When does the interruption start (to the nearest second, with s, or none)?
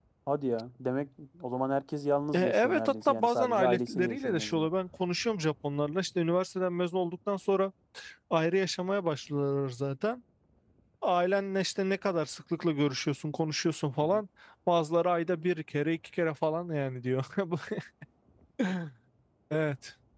2 s